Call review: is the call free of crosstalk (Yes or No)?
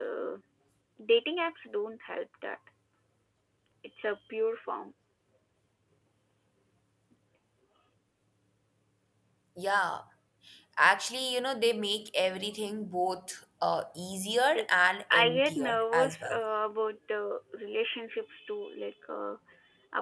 No